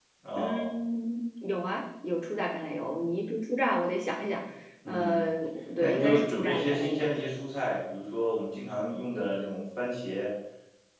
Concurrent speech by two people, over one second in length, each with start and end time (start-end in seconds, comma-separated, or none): 5.8-7.1